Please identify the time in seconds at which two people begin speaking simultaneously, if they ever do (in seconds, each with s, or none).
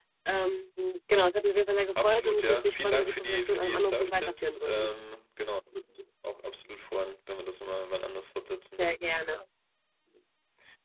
2.0 s